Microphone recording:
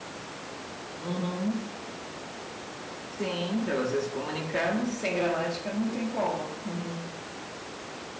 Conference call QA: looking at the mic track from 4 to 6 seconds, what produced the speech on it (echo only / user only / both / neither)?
user only